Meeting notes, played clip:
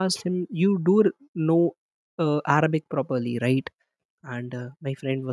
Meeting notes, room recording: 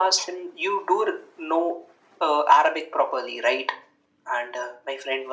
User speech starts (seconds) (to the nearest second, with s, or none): none